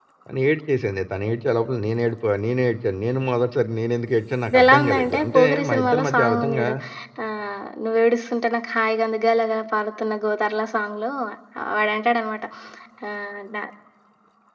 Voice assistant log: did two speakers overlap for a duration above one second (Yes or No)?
Yes